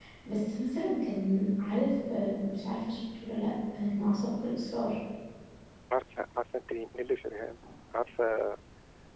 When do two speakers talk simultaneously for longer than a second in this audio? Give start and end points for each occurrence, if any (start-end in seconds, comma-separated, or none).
none